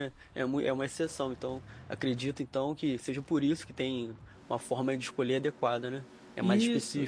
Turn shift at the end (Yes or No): Yes